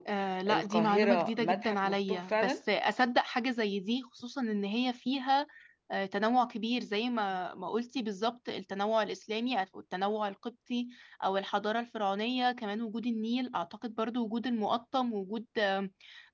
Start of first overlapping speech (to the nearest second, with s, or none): 1 s